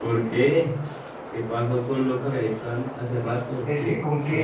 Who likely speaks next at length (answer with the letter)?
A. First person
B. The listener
B